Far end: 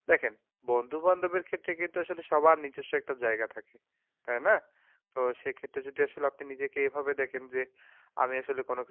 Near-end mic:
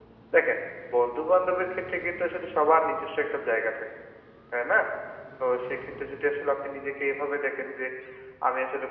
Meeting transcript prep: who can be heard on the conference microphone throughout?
echo only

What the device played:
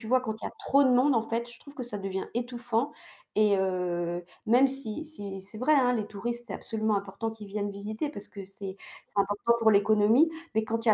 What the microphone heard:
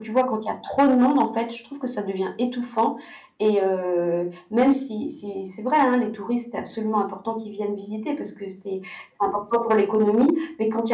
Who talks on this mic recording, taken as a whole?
echo only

